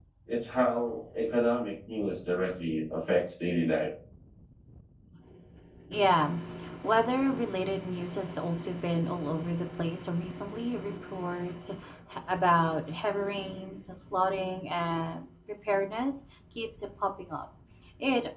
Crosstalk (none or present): none